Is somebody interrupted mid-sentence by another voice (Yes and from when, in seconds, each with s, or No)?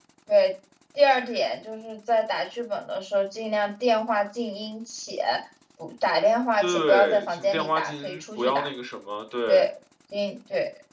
Yes, from 6.6 s